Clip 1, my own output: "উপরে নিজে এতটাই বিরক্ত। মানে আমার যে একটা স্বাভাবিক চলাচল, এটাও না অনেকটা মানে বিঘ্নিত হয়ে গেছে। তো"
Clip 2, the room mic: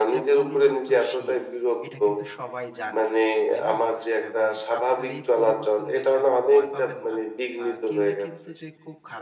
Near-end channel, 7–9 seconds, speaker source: both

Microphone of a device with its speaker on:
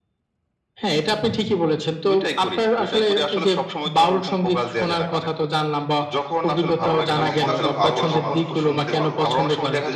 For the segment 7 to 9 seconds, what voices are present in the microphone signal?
both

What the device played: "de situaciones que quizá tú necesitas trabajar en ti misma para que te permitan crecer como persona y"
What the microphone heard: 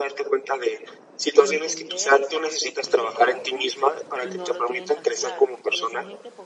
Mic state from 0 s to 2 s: both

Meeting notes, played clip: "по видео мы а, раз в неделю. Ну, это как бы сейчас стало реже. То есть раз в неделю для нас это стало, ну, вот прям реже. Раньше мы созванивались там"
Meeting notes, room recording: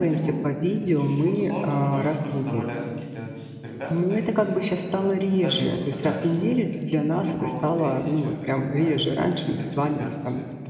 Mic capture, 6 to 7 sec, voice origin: both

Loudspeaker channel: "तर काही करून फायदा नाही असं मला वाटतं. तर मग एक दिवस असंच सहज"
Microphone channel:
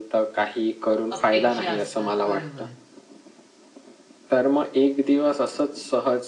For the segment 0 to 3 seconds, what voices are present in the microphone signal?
both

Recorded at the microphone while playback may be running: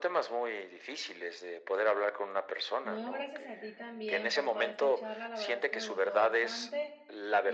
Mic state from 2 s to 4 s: both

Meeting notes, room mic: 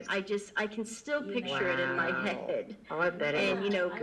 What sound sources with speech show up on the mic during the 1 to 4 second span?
both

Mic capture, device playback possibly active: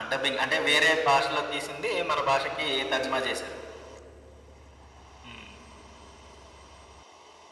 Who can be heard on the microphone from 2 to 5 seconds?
echo only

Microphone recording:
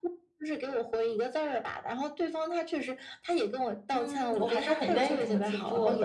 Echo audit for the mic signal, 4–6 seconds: both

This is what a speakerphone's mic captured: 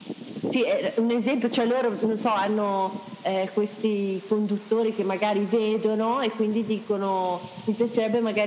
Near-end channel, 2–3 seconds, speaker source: echo only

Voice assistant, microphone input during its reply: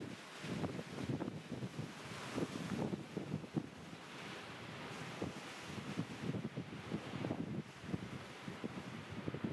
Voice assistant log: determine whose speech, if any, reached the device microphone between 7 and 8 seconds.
neither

